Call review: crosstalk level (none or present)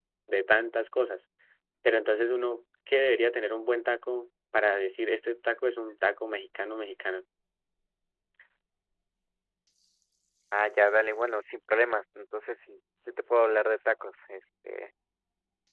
none